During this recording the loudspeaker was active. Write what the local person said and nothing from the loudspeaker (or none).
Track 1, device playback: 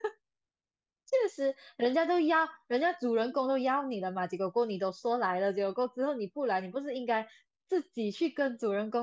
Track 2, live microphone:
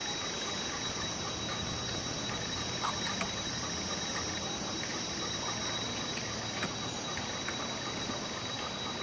none